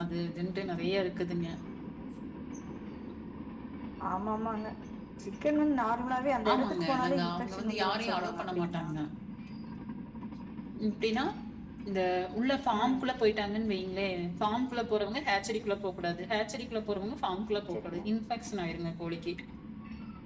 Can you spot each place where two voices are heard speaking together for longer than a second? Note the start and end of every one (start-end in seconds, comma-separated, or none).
6.5-8.9